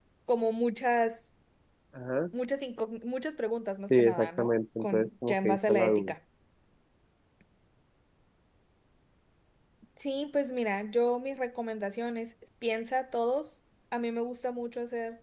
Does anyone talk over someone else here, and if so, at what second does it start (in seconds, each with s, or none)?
3.9 s